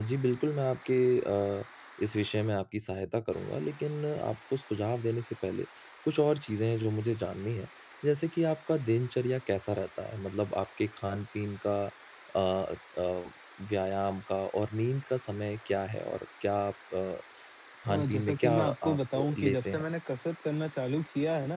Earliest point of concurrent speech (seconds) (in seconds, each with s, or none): 17.9 s